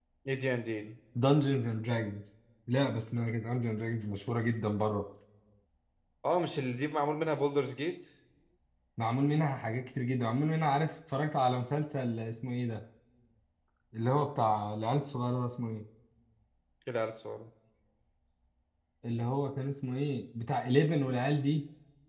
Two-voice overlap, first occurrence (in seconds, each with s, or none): none